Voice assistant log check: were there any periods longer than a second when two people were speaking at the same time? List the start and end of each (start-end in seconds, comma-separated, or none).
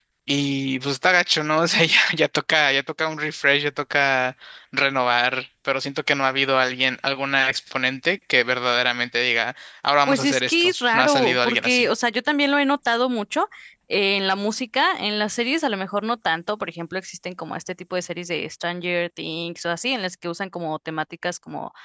10.1-11.9